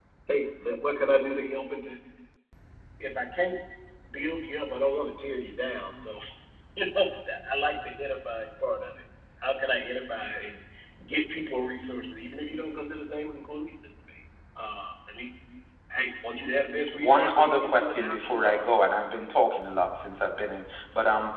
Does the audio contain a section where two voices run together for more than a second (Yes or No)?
Yes